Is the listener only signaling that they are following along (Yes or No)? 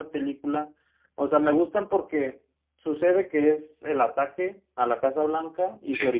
Yes